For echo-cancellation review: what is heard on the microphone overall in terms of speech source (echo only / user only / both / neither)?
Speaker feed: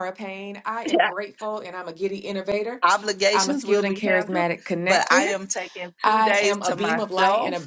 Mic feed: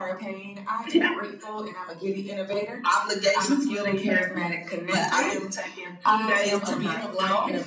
echo only